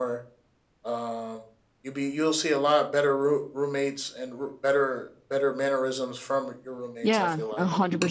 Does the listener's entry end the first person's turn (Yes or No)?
Yes